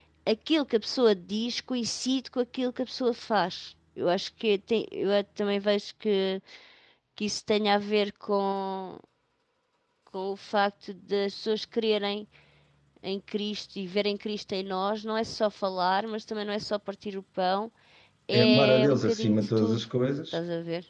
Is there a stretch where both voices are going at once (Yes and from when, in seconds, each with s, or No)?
Yes, from 18.3 s